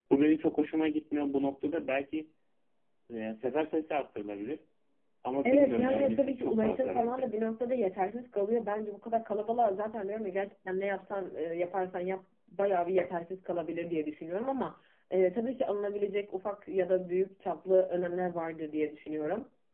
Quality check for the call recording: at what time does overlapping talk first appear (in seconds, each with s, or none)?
5.4 s